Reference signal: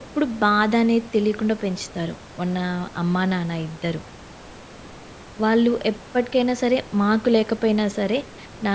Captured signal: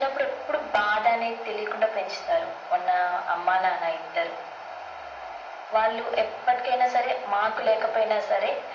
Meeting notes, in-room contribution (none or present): none